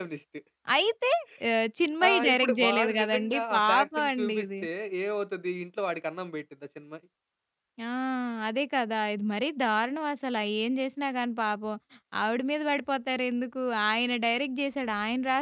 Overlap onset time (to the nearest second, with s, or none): 2 s